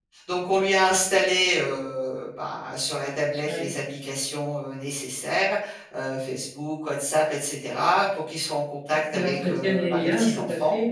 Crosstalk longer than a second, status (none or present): present